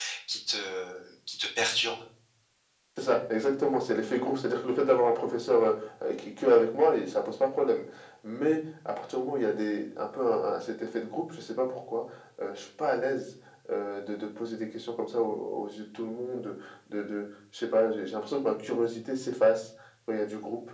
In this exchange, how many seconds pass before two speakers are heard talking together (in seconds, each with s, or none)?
none